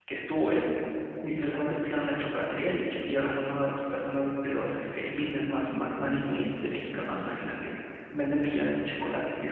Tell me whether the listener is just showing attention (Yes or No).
Yes